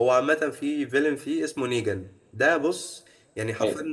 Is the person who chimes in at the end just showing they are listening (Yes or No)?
Yes